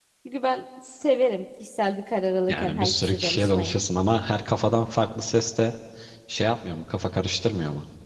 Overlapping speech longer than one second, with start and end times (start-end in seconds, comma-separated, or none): 2.5-3.8